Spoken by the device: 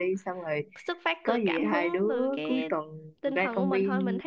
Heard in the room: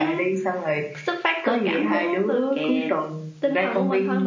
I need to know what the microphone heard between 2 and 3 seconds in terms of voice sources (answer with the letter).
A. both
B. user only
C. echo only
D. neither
C